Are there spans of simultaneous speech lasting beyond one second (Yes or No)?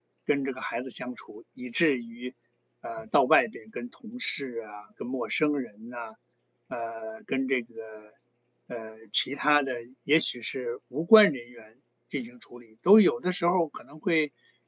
No